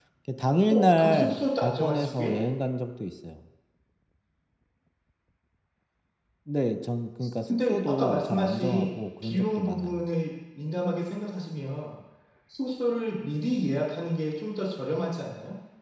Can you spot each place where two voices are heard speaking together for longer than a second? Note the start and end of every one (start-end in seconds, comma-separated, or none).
1.0-2.4, 7.5-10.0